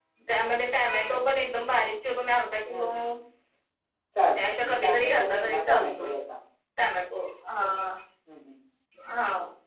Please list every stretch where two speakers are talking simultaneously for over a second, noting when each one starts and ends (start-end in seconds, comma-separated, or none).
4.4-6.0